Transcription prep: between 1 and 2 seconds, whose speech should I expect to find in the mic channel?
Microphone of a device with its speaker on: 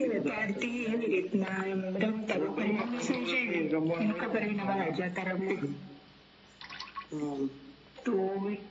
echo only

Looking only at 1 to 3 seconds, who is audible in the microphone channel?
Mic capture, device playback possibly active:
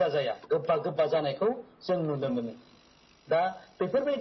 echo only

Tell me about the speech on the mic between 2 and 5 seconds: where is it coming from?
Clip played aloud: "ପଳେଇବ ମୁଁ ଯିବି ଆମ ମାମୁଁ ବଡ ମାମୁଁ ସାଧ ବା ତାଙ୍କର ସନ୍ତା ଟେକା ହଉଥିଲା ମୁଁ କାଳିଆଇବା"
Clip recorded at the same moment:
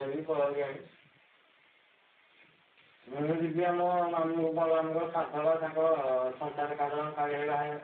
echo only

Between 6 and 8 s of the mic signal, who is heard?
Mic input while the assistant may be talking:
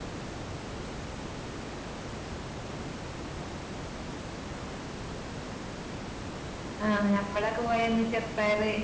user only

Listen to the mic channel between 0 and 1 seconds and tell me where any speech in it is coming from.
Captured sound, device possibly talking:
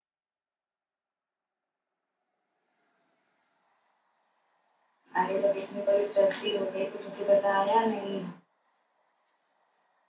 neither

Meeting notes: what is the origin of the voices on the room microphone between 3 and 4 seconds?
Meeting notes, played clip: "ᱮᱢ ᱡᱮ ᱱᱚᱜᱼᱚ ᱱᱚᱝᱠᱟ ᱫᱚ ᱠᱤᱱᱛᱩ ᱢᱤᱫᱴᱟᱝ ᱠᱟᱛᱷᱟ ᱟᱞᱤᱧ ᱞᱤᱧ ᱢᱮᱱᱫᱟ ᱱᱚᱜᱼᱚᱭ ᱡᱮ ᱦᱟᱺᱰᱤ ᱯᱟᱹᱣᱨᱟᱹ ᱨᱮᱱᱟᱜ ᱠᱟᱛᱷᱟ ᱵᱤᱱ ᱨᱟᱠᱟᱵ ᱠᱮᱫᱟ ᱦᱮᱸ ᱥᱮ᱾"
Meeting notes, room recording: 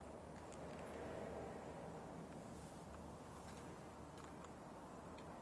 neither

